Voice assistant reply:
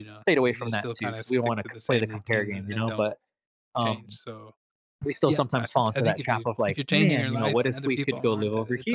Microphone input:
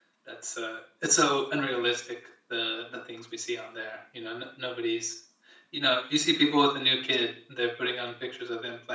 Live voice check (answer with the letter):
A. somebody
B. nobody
A